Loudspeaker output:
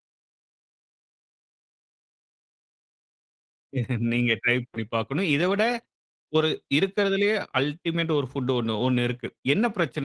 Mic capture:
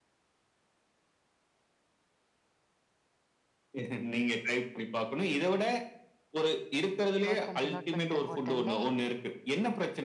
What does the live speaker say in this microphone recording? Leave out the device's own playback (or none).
நோட் பண்ணிட்டேன், நோட் பண்ணிட்டேன். உடனே